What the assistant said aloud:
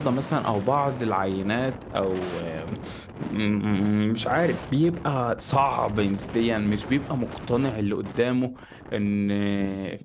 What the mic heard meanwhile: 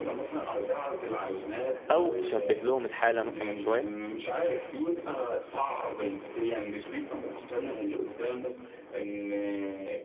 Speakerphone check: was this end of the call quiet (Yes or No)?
No